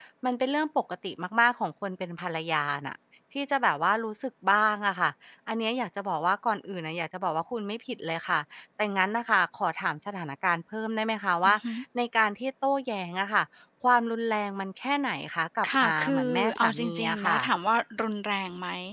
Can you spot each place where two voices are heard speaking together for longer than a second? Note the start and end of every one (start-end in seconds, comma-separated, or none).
15.8-17.4